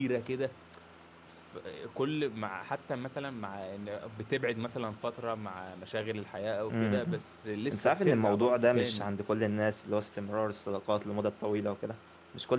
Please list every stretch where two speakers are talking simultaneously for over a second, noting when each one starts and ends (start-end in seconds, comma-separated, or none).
7.7-9.1